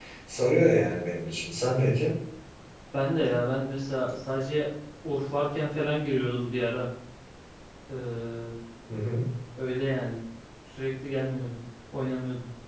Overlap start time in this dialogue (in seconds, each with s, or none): none